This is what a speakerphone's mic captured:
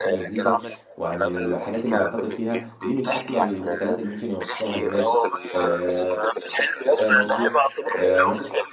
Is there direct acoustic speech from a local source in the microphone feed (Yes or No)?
Yes